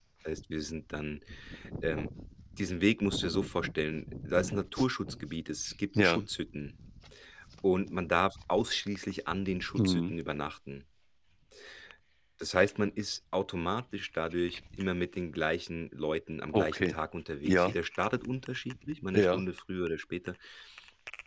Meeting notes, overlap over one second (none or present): none